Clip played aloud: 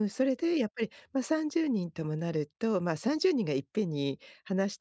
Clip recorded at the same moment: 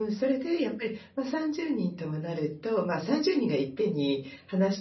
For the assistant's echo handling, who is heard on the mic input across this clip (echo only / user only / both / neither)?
echo only